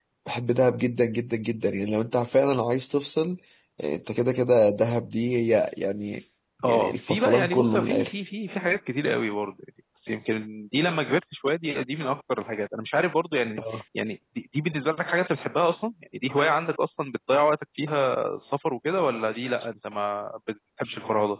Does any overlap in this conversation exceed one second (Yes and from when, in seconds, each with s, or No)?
Yes, from 6.7 s